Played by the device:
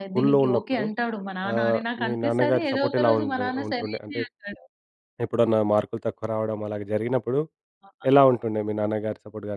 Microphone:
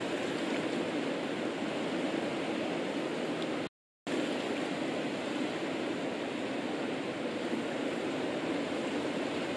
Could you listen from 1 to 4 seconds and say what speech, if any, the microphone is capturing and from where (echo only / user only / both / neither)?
neither